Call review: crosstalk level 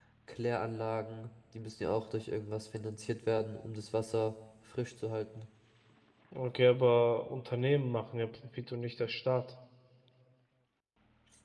none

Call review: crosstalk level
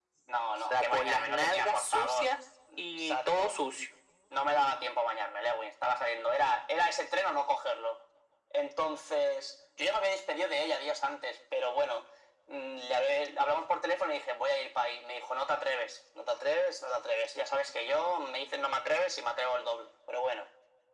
present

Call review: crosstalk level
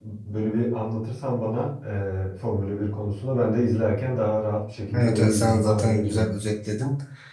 present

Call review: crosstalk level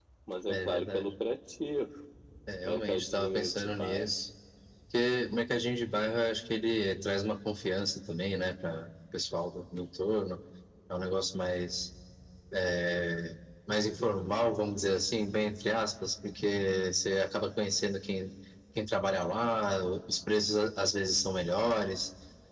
present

